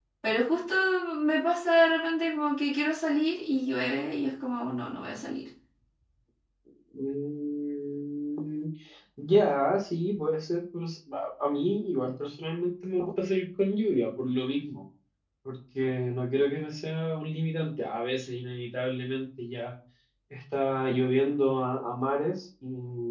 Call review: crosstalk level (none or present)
none